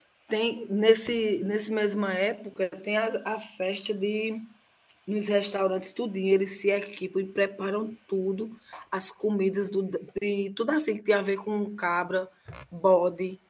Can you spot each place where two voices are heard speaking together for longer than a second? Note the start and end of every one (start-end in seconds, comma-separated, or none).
none